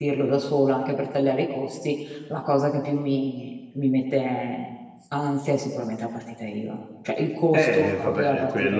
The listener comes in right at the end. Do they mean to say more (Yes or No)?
Yes